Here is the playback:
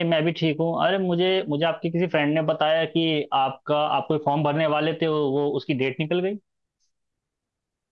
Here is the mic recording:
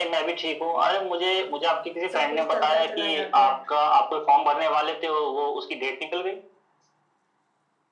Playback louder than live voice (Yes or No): Yes